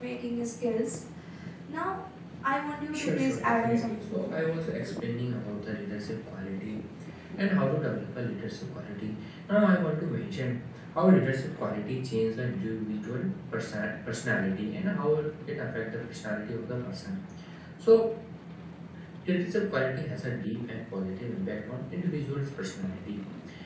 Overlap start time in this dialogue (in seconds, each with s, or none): 2.9 s